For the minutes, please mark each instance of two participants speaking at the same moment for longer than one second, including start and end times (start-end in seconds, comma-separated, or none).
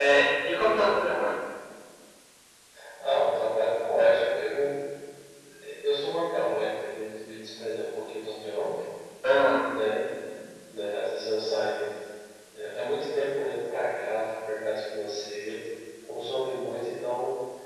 none